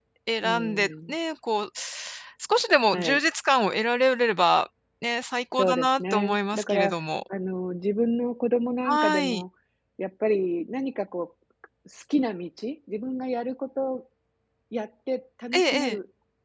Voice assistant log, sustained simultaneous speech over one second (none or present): present